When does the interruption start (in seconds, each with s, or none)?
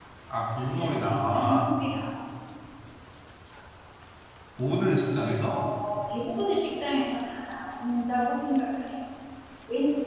0.6 s